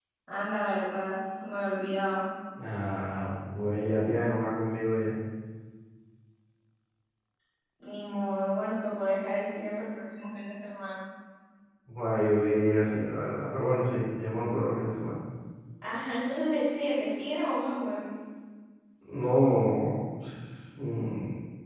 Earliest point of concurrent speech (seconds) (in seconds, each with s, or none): none